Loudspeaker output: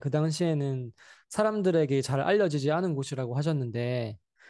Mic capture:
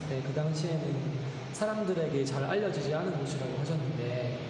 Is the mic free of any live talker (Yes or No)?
Yes